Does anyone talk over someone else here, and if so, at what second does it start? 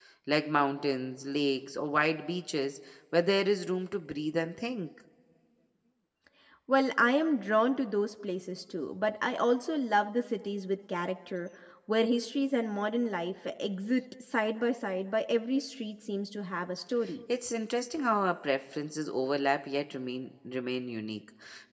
none

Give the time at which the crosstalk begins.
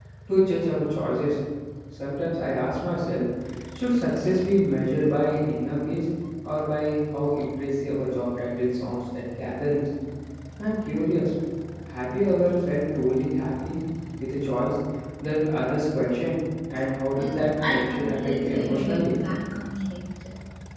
17.2 s

